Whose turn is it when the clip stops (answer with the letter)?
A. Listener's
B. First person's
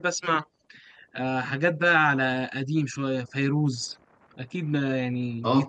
A